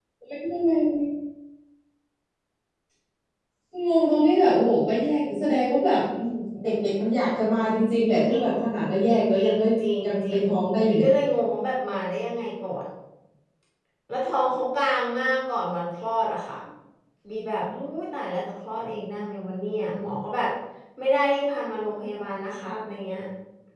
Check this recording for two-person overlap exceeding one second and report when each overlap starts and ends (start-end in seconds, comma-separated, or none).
none